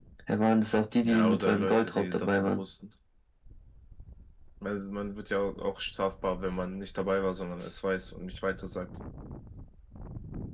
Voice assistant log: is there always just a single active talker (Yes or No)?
No